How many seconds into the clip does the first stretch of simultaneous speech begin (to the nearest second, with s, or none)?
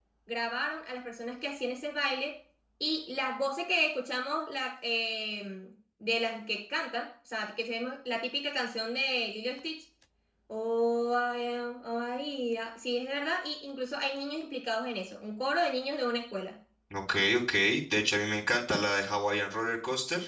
none